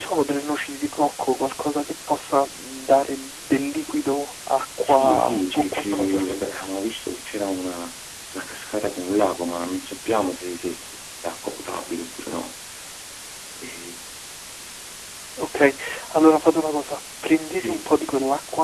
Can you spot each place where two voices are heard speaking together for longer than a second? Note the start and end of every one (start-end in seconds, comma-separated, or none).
4.8-6.3